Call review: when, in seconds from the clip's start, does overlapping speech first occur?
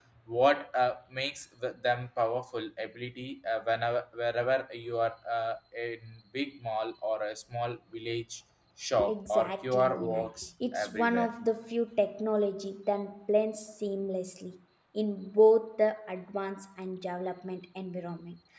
9.0 s

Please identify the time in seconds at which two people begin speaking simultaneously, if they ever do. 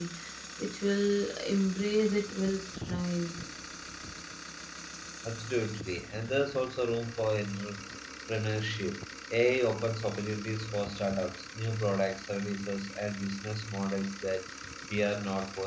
none

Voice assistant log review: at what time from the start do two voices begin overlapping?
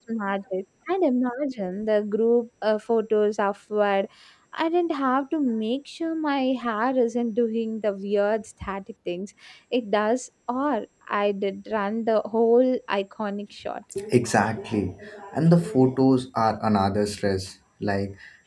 none

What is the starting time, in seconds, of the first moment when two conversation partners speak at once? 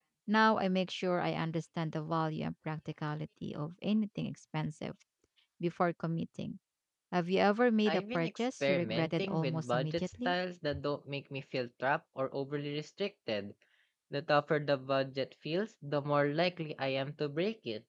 7.9 s

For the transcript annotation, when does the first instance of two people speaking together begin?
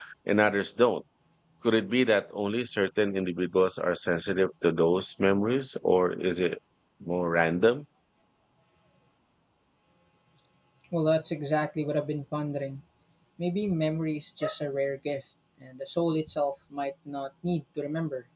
none

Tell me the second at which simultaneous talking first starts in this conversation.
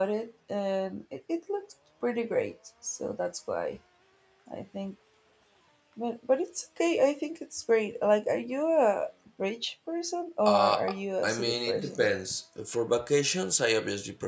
10.5 s

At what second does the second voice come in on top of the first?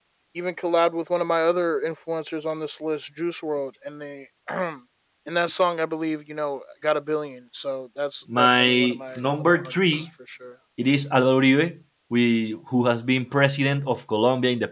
8.3 s

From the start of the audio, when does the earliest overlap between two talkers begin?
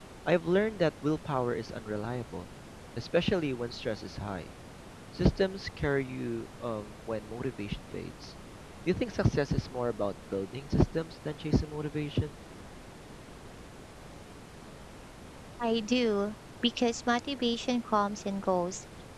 none

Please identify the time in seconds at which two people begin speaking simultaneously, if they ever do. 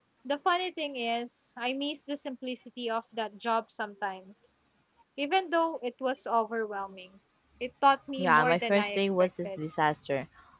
8.2 s

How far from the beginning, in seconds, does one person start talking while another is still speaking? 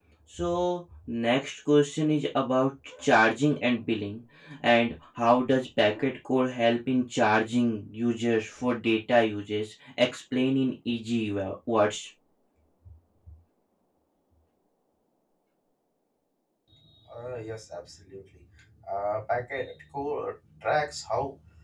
none

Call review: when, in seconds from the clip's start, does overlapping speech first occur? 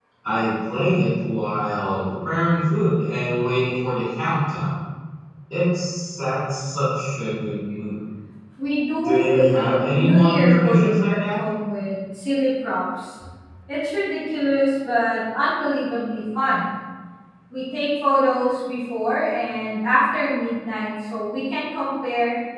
9.0 s

